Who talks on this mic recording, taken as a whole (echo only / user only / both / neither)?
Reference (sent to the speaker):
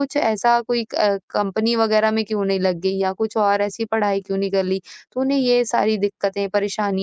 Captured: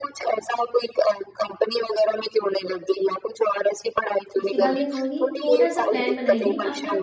both